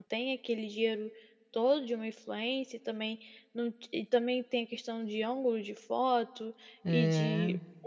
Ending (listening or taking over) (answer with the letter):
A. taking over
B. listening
B